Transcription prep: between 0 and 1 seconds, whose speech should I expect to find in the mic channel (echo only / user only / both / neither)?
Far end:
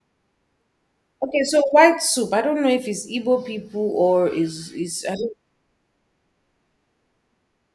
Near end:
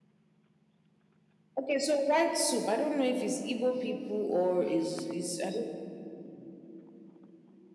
neither